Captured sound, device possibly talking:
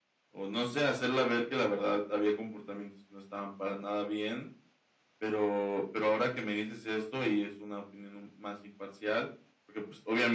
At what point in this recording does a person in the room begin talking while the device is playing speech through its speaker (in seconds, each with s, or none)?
none